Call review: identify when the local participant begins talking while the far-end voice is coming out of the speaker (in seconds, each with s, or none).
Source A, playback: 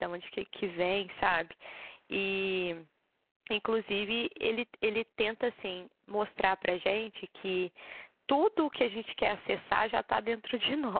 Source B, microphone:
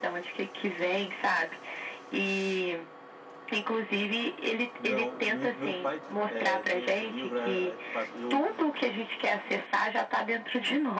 4.8 s